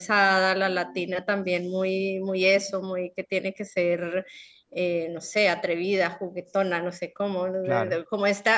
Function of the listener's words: listening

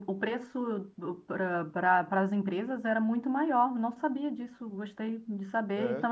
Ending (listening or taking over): listening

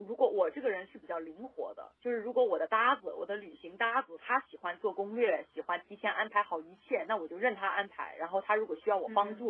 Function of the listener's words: listening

